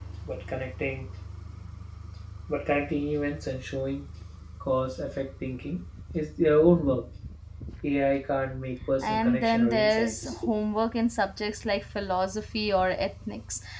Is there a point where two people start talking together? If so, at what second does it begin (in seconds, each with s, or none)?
9.0 s